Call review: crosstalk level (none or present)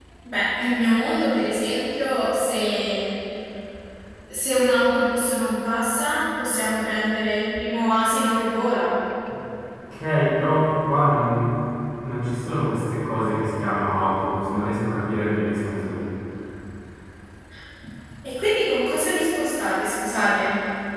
none